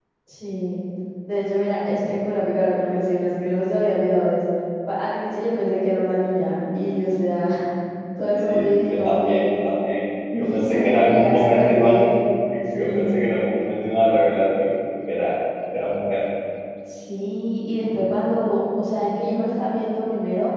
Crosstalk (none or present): present